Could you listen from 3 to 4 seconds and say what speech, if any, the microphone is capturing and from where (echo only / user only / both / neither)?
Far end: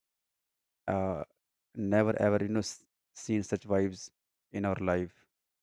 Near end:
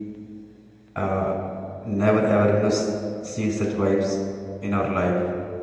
echo only